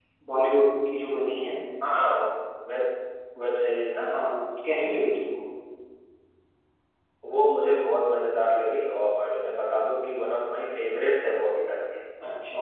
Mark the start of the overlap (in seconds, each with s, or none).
none